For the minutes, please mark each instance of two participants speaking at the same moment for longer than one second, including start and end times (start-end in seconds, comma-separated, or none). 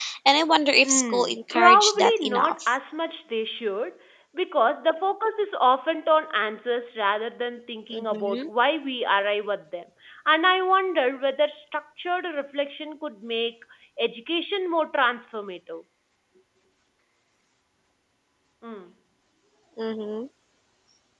0.8-2.5